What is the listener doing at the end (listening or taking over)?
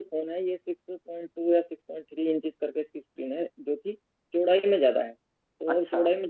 listening